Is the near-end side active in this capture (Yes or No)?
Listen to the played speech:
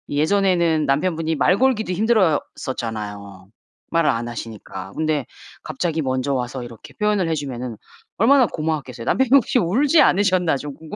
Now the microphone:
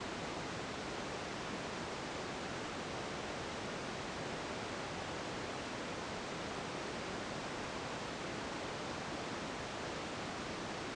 No